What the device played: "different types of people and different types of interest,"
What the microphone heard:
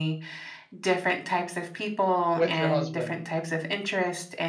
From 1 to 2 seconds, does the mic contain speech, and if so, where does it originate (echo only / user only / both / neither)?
echo only